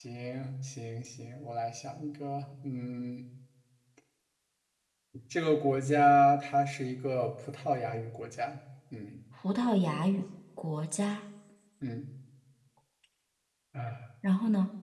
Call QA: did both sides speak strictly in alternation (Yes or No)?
Yes